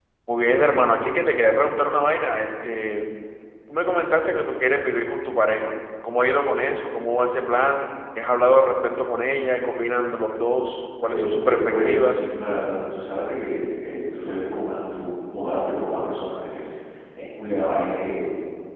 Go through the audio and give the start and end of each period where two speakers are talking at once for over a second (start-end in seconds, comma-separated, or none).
11.0-12.3